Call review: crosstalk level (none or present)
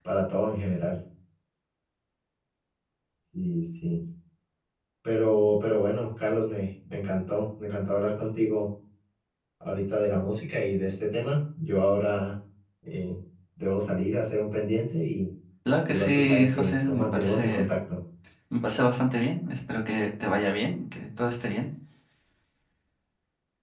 present